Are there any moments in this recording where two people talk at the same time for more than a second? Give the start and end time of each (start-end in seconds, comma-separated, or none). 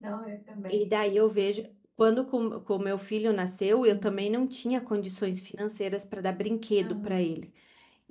none